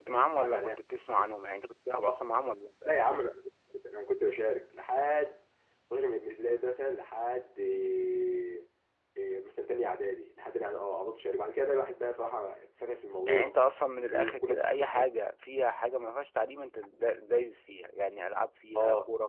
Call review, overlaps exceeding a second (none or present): none